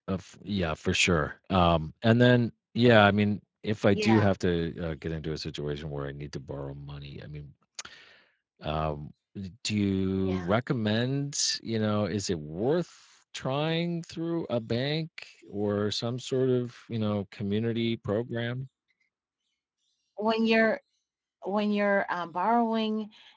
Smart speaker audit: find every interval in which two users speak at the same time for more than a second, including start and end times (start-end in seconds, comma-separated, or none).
none